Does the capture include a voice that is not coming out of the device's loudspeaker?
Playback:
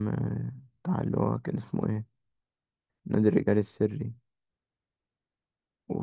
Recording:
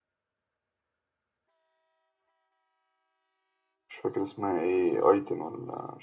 Yes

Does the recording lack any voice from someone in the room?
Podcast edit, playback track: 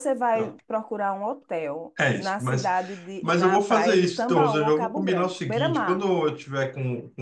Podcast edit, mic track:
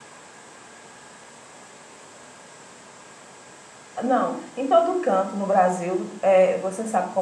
No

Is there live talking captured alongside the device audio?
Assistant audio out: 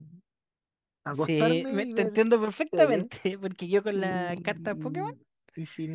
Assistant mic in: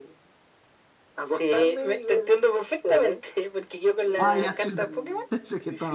Yes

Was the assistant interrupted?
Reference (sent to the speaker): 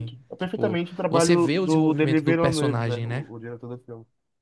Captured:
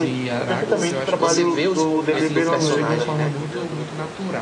Yes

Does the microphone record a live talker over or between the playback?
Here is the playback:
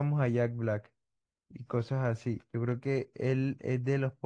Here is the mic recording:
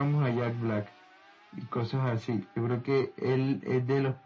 No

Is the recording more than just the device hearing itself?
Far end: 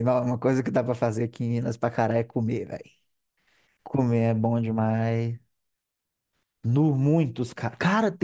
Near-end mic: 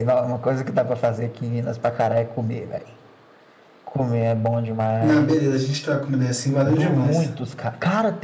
Yes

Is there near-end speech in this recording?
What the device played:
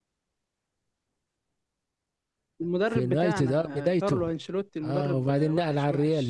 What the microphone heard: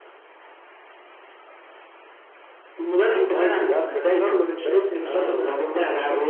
Yes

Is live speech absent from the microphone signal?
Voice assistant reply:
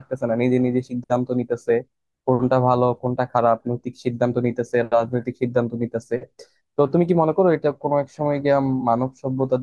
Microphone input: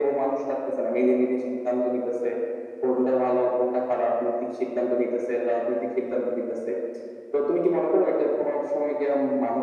Yes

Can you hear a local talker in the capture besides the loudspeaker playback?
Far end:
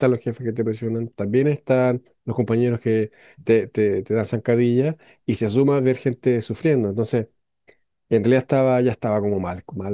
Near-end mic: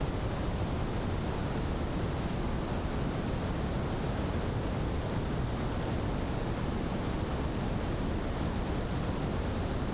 No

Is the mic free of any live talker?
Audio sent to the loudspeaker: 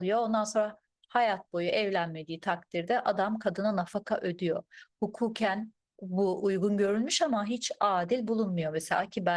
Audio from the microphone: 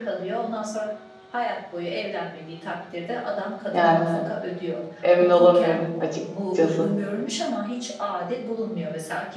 No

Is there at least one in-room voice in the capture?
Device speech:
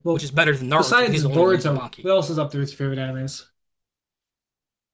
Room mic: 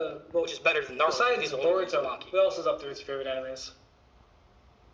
No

